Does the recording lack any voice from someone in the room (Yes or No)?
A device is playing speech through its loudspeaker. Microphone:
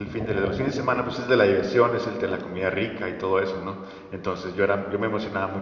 No